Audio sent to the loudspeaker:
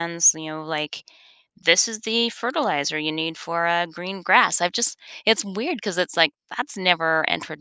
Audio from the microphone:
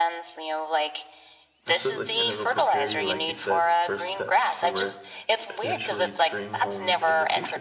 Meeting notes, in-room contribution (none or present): present